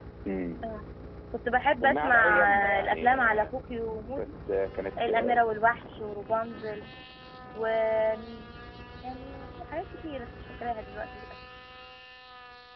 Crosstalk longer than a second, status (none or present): present